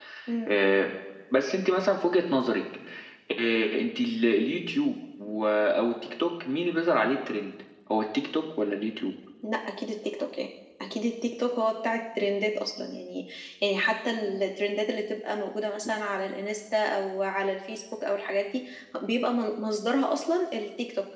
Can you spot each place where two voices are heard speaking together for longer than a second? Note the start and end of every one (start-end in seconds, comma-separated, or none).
none